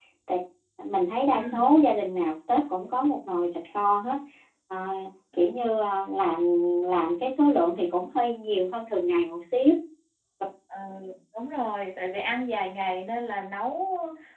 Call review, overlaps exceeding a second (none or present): none